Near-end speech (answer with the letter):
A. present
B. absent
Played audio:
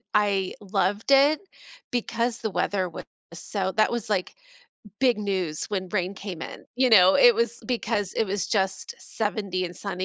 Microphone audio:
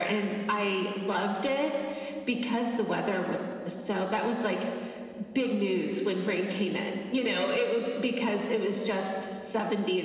B